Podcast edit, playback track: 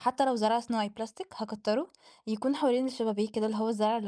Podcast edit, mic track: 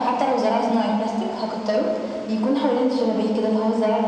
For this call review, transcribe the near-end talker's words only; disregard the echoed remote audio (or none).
امم.